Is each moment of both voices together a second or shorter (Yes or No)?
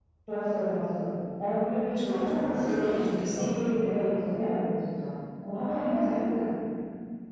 No